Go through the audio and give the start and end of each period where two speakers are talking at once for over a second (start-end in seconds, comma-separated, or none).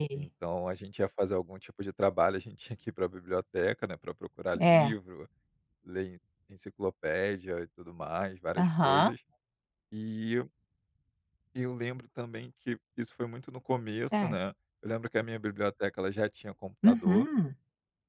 none